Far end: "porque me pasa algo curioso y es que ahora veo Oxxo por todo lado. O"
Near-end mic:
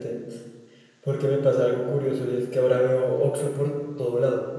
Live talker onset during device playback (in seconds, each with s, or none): none